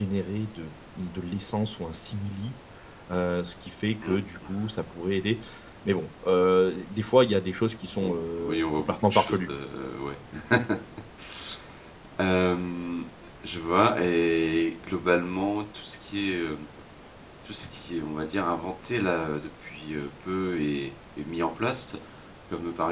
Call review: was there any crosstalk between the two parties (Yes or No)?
Yes